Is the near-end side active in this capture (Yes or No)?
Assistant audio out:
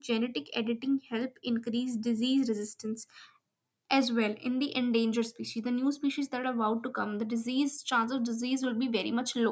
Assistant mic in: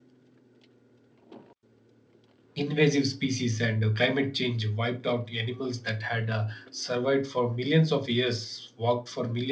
Yes